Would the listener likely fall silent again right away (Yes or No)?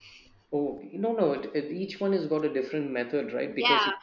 No